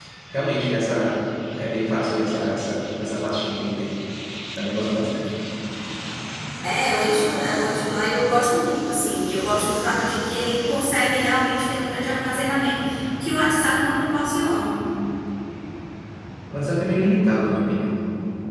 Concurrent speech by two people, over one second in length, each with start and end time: none

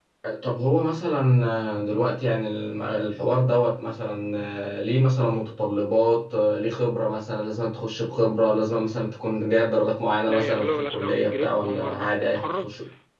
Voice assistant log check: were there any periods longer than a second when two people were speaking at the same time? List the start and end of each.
10.3-12.7

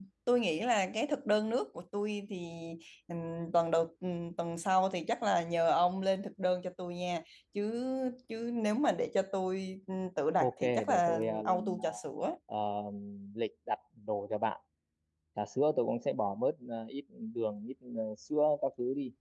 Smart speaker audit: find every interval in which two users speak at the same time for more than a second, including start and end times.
10.4-11.8

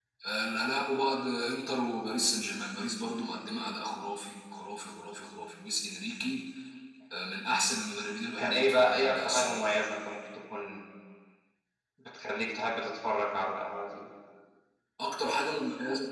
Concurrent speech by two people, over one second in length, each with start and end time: 8.4-9.6

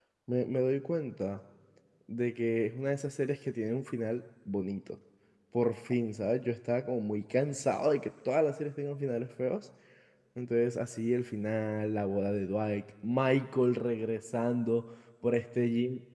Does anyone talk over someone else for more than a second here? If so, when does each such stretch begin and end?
none

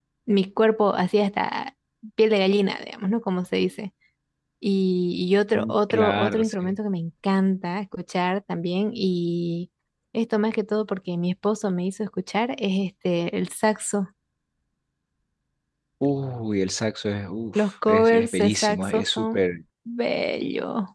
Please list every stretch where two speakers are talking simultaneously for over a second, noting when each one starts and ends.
5.5-6.7, 17.6-19.4

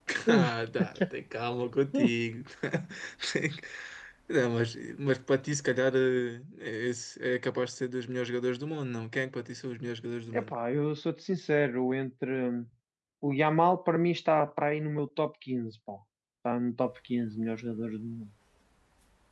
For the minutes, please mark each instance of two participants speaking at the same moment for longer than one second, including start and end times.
none

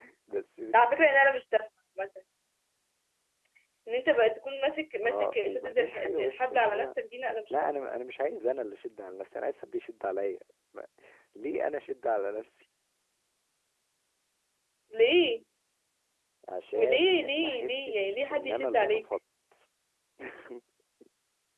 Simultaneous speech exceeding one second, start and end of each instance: 5.0-6.9, 16.7-19.1

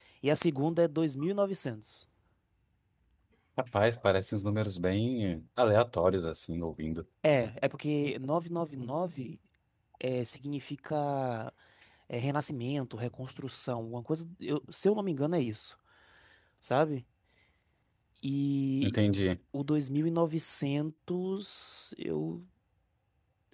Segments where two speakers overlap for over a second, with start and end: none

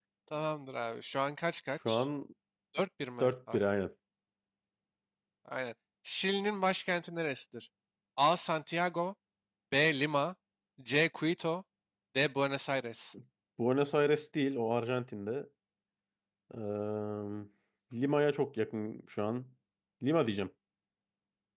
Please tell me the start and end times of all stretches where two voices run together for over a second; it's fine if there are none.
none

